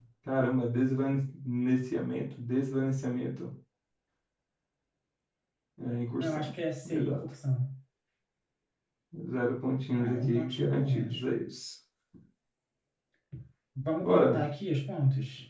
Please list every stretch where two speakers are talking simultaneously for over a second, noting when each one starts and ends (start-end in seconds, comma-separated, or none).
10.0-11.2